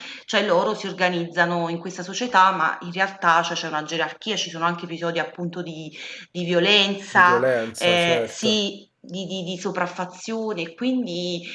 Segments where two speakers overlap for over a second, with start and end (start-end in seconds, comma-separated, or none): 7.1-8.6